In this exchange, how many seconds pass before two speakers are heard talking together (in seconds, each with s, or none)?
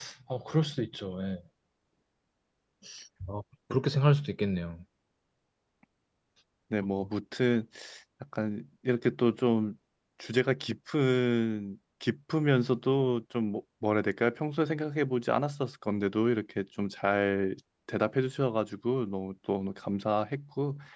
none